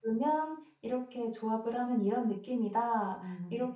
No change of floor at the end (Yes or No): Yes